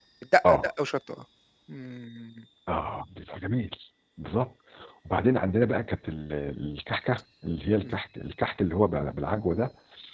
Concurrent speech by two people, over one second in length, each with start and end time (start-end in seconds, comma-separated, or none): none